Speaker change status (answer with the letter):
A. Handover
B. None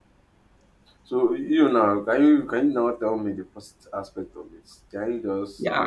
A